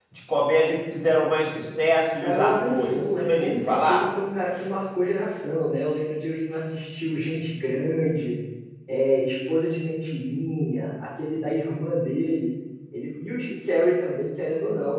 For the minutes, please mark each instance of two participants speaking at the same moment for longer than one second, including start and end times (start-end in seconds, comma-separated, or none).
2.2-4.0